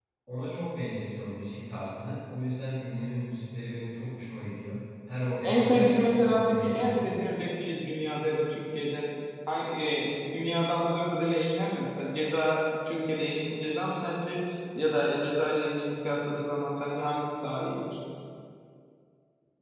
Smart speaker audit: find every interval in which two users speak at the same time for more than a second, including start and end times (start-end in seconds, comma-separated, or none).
5.4-7.1